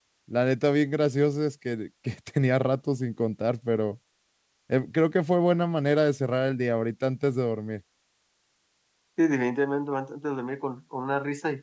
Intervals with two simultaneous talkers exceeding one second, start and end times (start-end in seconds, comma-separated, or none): none